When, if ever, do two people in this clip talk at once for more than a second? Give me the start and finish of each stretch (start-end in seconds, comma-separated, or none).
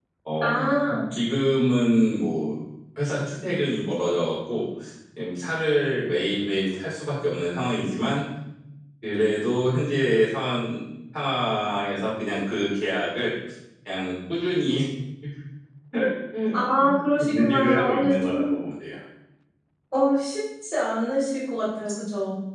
17.3-18.5